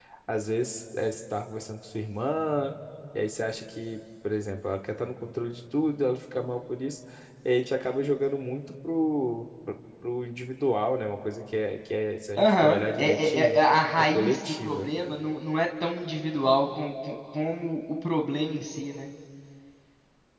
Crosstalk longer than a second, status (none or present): present